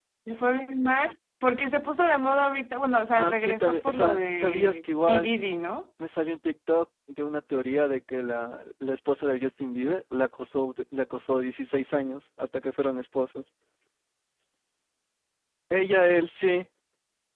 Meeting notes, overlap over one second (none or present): present